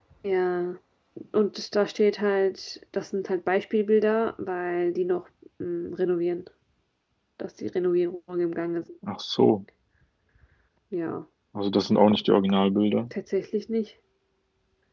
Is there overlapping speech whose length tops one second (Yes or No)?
No